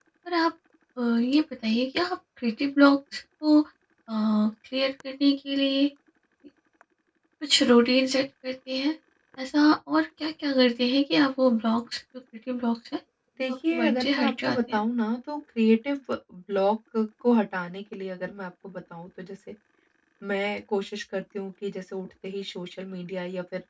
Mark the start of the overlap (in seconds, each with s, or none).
13.4 s